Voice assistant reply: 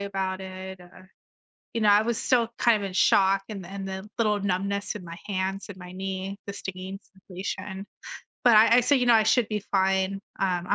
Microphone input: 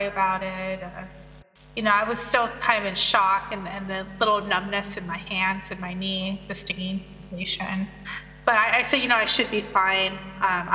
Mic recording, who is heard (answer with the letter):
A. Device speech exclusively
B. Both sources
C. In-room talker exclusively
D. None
A